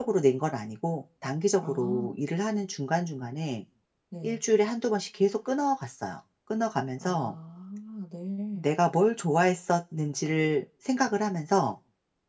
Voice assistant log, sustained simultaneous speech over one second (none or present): none